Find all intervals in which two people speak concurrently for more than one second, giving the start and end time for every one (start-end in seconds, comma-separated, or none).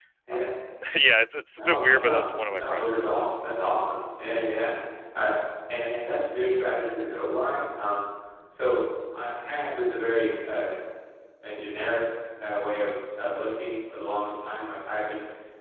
1.6-3.1